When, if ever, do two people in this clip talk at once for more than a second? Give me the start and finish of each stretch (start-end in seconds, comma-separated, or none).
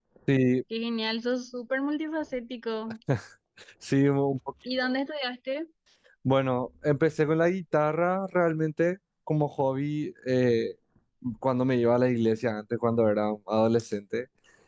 none